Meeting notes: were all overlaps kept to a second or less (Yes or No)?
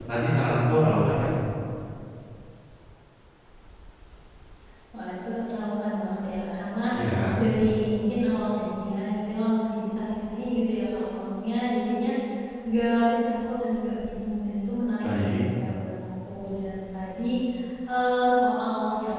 Yes